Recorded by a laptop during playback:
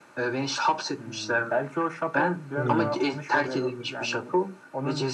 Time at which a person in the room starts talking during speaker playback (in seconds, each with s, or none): 2.5 s